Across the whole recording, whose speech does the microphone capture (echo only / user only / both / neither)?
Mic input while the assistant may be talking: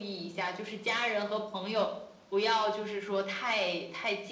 echo only